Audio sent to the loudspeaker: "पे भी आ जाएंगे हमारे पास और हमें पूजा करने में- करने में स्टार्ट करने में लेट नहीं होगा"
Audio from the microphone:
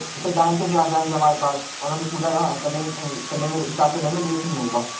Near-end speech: none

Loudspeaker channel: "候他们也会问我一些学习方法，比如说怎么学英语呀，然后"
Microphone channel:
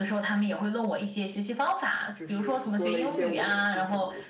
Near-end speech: present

